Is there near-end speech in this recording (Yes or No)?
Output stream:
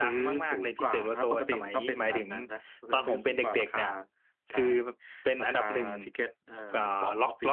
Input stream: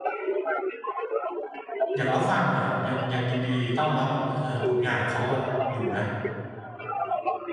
Yes